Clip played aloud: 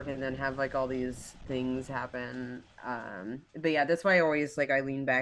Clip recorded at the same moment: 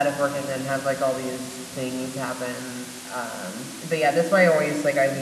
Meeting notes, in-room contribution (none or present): none